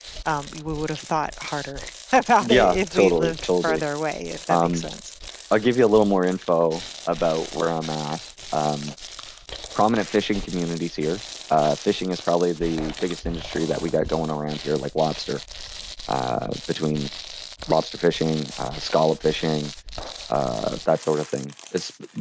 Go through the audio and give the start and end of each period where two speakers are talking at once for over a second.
2.4-3.8

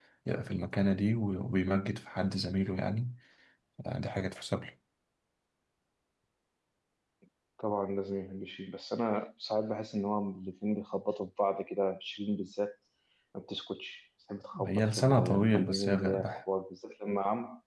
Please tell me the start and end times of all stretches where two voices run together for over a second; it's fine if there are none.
14.7-16.4

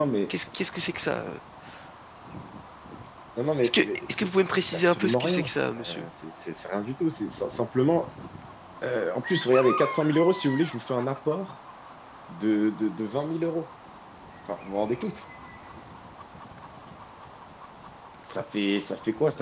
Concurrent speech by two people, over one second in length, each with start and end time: 3.6-6.1

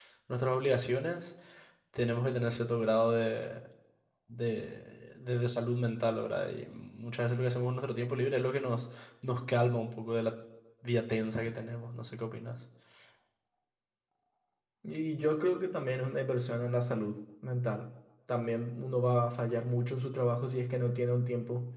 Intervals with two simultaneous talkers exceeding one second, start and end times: none

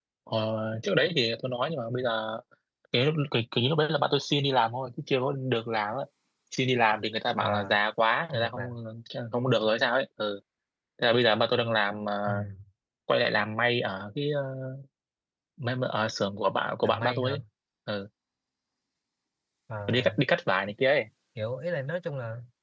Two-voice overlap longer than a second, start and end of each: none

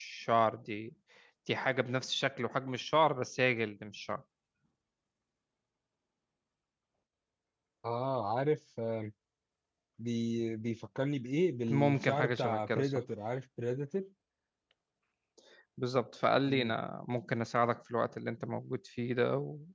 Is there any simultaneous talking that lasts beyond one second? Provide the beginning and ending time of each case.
11.7-13.0

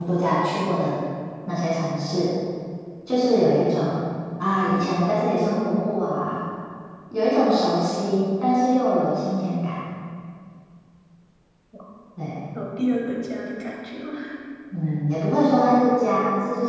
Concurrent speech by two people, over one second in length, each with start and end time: none

